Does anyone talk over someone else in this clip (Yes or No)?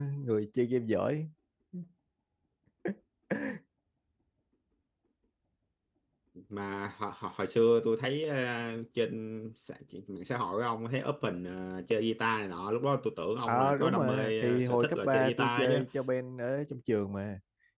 Yes